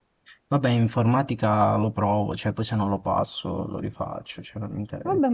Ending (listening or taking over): taking over